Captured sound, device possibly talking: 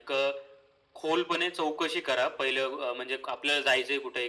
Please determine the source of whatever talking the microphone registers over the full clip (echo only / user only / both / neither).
echo only